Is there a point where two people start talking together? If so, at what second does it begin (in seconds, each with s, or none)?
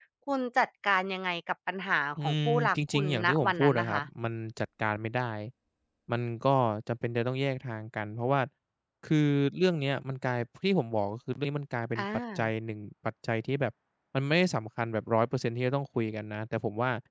2.2 s